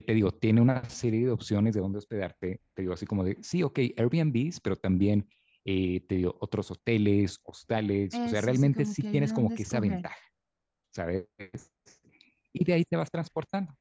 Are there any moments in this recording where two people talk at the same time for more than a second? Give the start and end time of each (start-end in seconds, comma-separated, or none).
8.1-10.1